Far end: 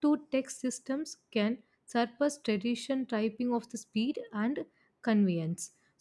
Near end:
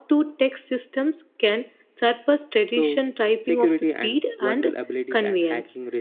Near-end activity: present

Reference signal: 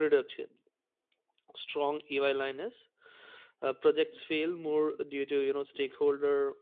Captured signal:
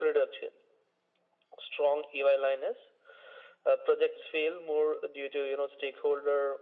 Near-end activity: none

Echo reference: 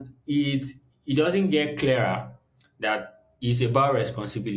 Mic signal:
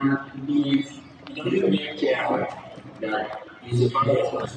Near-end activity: none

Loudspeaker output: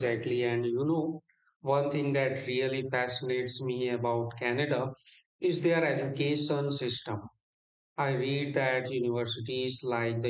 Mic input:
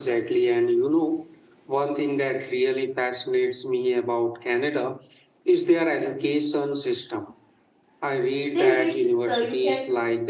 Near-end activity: present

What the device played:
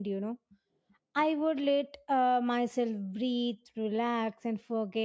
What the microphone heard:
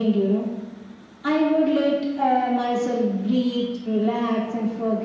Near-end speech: none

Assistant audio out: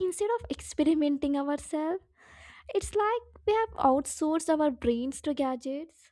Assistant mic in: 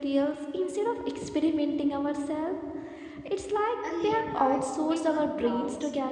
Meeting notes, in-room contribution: present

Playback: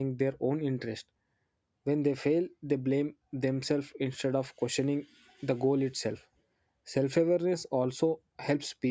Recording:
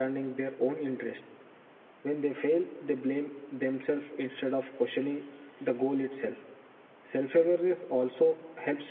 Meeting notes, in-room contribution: none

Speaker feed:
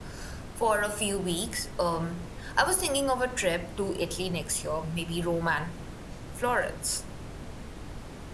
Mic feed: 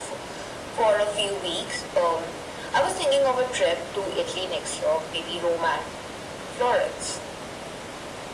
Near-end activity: none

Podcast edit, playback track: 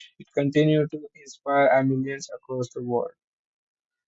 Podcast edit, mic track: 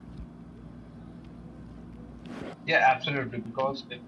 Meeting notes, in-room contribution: present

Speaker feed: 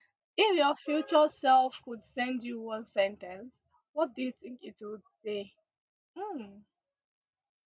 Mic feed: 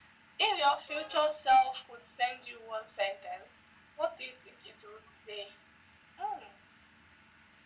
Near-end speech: none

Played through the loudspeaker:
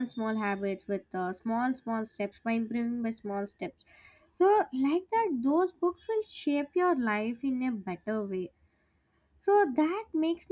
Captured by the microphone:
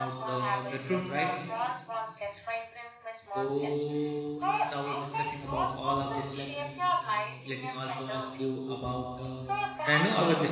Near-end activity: present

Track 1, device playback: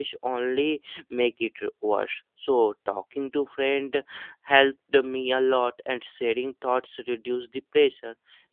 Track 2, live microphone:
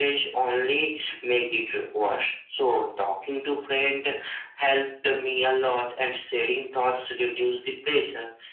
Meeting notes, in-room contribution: none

